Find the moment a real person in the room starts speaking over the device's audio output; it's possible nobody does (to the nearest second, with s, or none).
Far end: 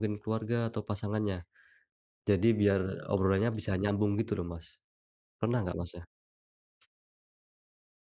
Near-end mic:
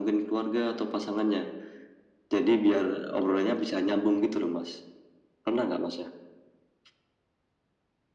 none